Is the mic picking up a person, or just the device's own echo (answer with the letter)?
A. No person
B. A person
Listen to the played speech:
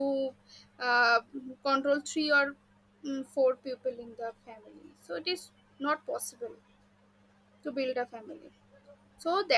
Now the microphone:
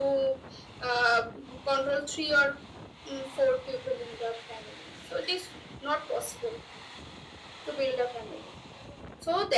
A